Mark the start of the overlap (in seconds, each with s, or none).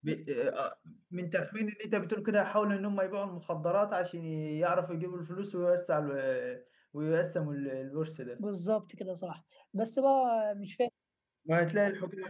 none